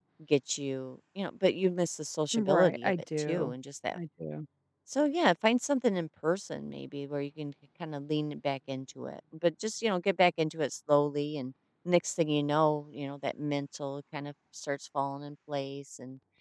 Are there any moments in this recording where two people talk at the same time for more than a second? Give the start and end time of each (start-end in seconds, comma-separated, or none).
2.3-3.5